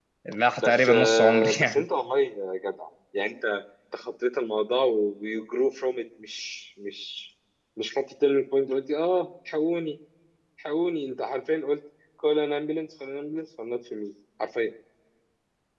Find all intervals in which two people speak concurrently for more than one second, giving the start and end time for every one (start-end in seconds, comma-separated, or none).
0.6-1.8